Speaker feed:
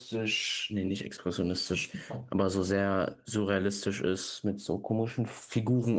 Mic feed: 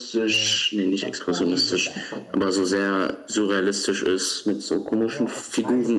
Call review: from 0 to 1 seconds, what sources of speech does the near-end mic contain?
both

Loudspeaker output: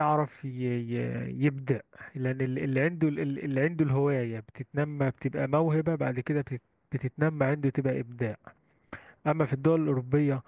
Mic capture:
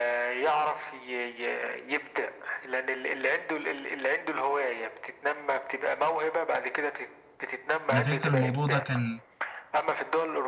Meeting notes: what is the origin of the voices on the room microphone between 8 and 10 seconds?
both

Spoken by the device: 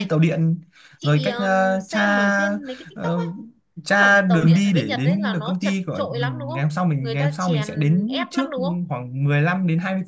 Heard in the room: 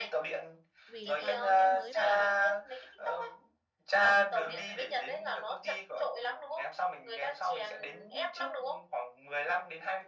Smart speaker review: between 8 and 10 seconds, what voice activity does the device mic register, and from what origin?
echo only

